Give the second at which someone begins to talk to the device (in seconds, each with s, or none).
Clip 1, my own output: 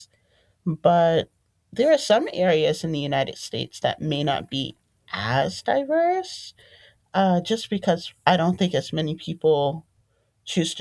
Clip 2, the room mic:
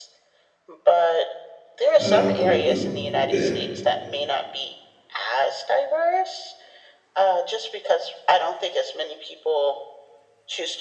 2.0 s